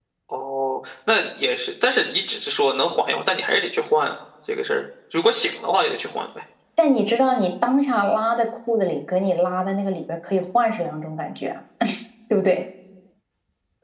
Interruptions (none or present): none